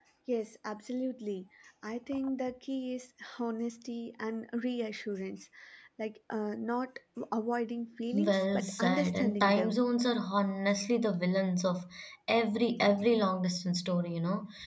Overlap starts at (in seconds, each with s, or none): 8.1 s